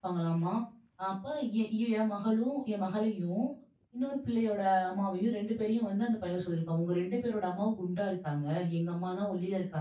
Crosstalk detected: No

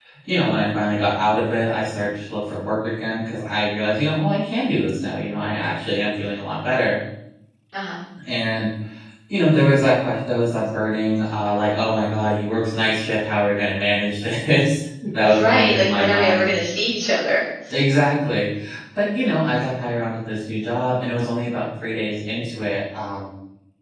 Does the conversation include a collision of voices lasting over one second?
Yes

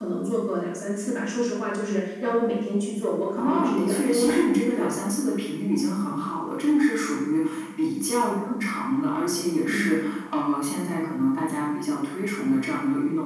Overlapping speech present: Yes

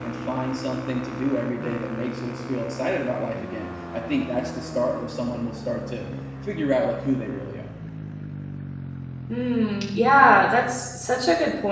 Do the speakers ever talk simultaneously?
No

